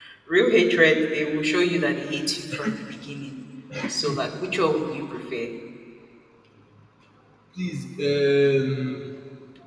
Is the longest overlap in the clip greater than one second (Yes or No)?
No